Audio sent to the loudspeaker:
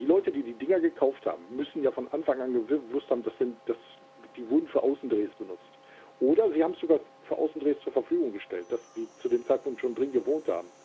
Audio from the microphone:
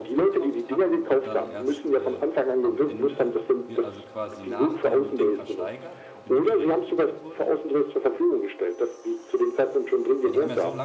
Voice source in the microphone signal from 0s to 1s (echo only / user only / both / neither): both